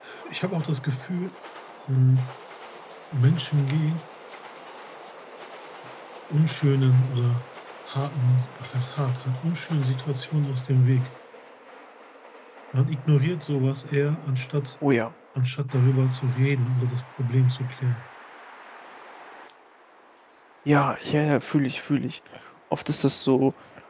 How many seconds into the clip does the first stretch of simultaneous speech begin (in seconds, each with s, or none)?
none